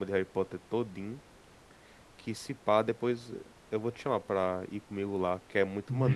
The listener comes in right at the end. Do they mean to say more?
Yes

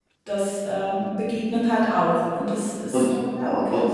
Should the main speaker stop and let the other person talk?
Yes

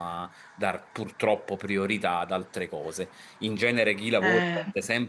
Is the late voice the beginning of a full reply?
No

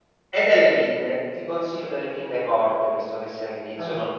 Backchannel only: Yes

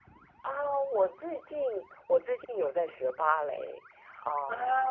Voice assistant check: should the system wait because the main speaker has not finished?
Yes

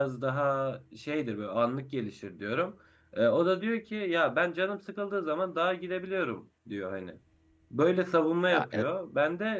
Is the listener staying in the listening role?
Yes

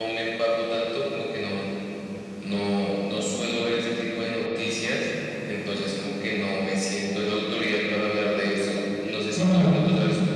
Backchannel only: Yes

